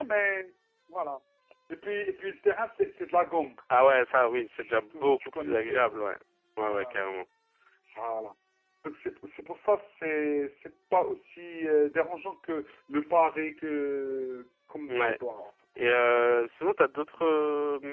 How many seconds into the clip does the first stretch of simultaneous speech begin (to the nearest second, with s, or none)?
4 s